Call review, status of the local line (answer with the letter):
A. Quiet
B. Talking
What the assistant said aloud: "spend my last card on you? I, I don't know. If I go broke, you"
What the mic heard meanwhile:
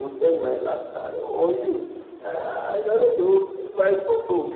A